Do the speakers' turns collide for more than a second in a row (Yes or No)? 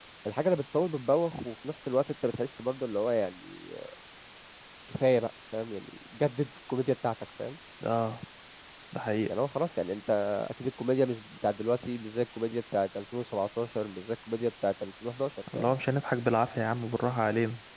No